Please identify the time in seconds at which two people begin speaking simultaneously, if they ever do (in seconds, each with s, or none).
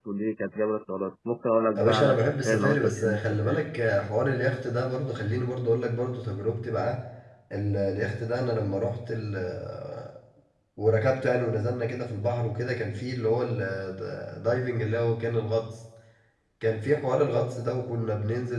1.8 s